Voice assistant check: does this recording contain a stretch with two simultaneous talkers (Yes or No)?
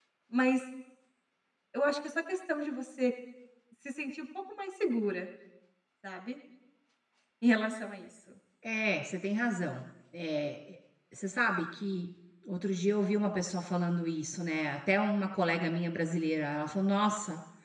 No